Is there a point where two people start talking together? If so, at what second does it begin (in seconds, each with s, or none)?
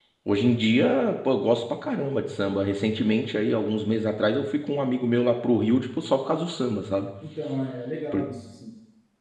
none